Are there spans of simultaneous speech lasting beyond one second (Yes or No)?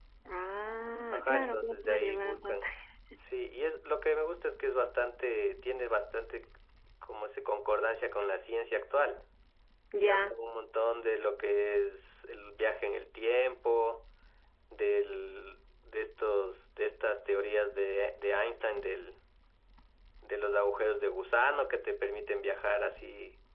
Yes